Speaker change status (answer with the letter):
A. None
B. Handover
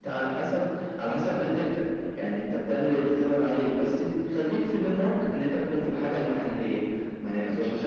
A